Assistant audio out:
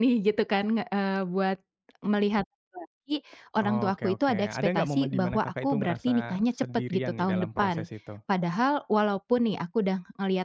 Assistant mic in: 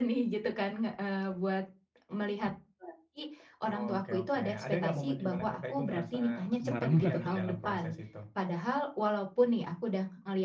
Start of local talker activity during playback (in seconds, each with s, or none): 6.5 s